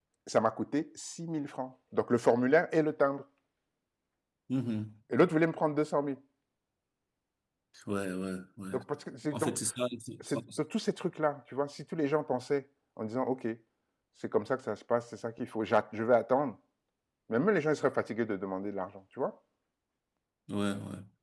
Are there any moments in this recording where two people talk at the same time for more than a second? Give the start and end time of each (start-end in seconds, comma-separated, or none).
none